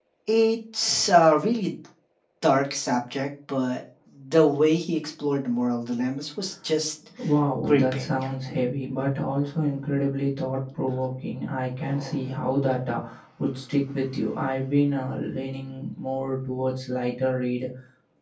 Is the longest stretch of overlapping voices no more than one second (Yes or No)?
Yes